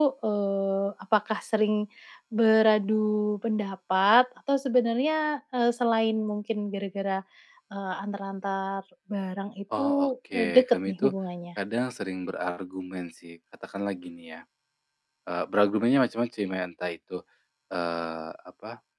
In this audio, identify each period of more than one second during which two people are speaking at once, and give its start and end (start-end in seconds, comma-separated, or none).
9.8-11.0